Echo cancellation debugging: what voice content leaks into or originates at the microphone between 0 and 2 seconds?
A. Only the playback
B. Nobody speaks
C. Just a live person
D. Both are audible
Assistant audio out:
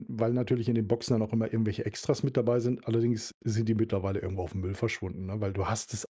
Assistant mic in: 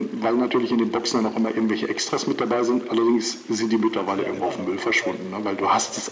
A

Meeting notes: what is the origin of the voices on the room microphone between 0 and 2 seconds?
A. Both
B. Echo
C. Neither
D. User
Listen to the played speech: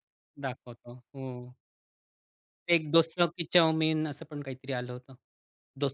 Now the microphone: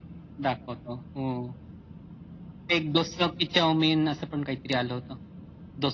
B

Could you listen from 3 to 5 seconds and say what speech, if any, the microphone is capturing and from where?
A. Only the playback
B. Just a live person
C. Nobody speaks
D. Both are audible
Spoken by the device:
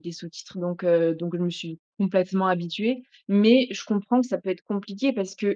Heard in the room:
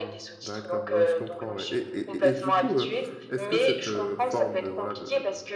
D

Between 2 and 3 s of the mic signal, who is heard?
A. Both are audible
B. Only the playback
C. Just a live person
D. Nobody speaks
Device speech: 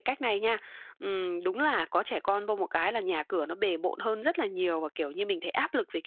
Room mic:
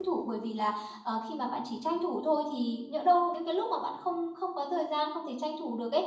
C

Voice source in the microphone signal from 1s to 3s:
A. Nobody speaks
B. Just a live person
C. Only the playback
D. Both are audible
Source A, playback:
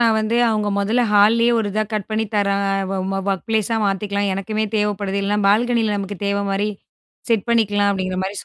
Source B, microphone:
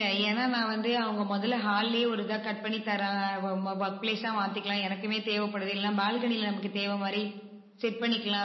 C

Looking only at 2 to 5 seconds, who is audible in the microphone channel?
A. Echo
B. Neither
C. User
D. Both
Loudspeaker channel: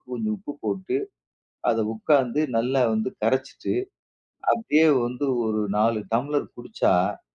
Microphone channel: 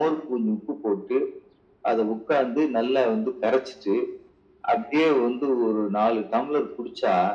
A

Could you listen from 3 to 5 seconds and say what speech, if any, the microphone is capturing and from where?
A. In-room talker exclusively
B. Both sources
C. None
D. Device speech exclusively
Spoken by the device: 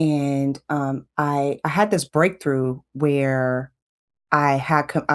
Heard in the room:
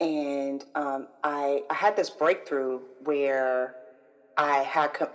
D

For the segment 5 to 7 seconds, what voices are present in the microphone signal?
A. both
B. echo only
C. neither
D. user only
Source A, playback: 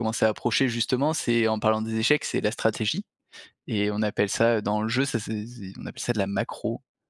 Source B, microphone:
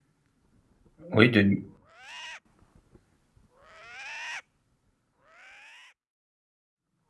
C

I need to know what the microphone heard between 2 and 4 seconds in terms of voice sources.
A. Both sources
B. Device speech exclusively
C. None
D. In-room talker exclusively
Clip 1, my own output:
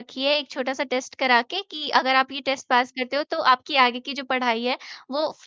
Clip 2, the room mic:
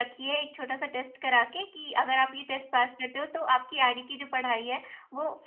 B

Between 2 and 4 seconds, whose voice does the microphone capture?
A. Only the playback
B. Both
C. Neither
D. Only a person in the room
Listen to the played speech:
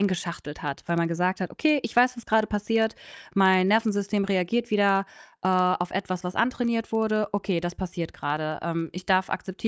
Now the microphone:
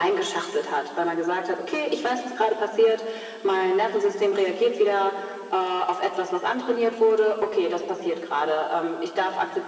A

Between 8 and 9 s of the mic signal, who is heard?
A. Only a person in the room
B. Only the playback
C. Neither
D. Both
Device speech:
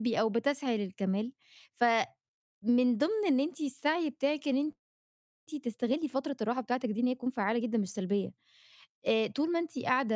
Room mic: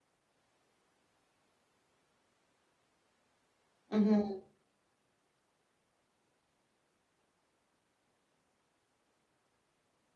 C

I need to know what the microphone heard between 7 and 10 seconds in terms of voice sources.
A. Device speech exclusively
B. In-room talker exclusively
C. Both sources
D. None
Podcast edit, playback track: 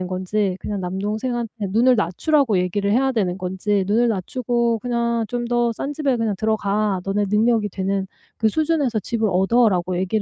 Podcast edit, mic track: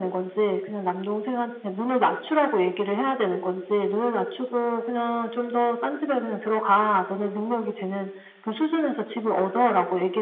A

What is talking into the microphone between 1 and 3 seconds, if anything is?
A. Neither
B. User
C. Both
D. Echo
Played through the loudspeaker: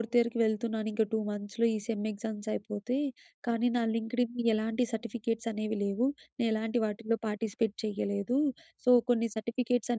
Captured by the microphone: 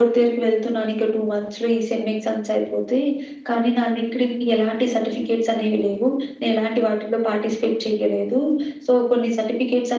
D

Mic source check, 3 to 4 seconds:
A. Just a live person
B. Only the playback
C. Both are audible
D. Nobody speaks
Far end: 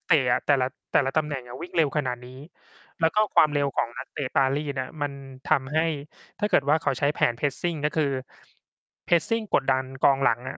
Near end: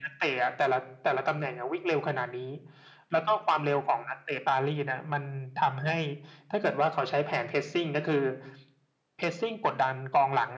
B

